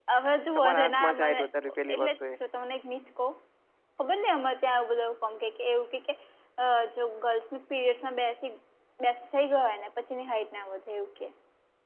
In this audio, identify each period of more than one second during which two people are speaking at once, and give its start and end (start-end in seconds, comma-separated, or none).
0.6-2.2